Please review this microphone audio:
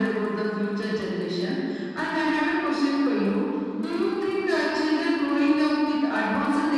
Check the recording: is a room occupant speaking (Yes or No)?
No